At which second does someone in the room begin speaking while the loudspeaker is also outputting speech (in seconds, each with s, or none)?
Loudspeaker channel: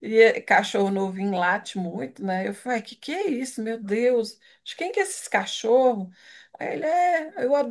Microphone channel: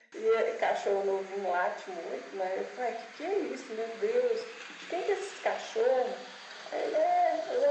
none